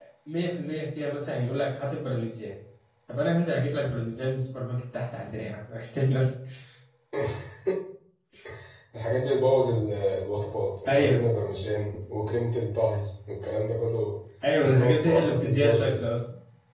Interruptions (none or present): present